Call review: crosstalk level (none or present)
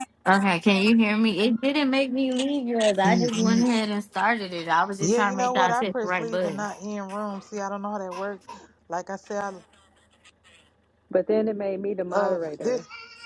present